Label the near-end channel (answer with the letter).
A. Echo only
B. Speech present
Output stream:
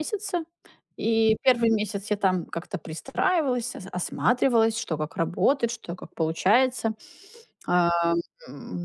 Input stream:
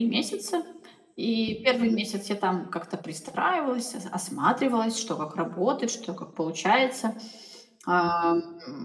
A